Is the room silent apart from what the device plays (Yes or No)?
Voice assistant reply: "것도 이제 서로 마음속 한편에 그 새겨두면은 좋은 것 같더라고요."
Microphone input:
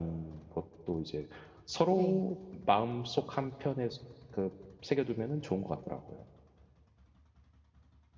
No